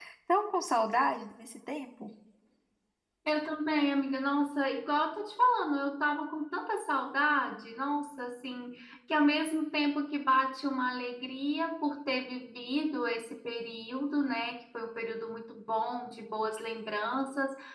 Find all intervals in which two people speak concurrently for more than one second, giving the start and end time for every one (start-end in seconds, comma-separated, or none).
none